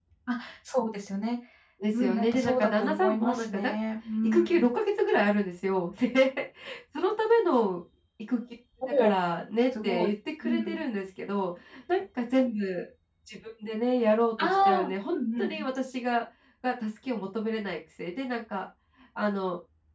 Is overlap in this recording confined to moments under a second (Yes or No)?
No